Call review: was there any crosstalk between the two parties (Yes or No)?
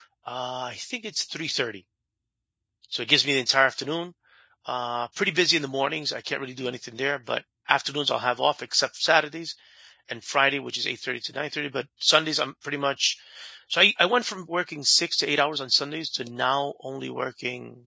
No